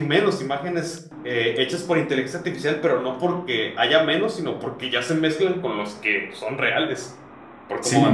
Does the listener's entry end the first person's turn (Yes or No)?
Yes